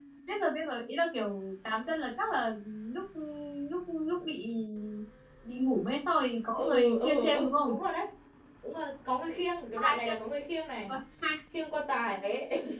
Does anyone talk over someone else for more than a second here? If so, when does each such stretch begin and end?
6.5-7.8

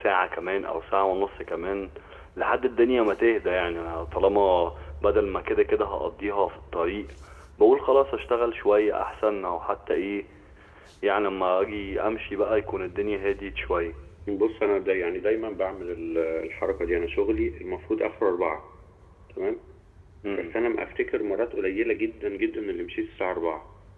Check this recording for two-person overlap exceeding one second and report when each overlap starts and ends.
none

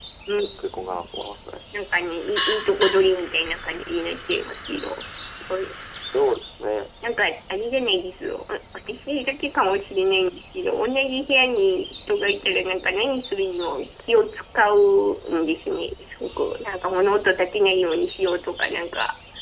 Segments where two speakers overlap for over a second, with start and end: none

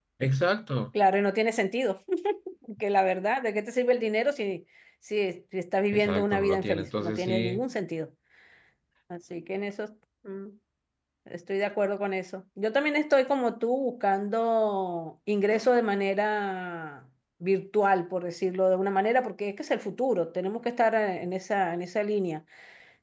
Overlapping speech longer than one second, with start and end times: 5.9-7.6

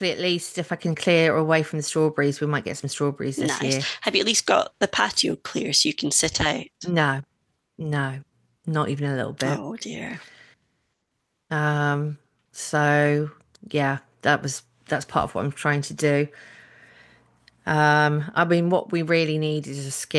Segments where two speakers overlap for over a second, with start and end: none

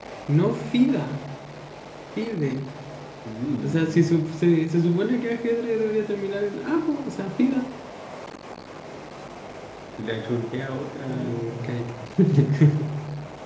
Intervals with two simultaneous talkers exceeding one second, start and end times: none

